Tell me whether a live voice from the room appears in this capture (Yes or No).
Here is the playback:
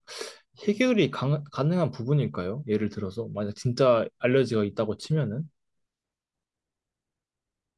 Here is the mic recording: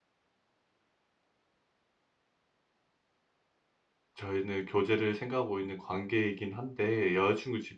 Yes